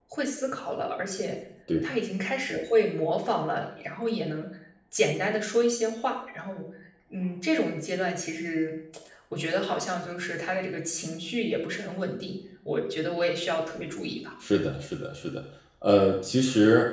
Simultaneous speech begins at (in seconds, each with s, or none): none